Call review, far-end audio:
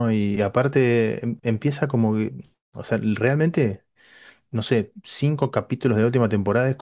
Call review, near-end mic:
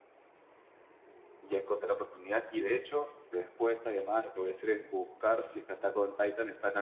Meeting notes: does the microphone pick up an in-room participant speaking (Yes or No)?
Yes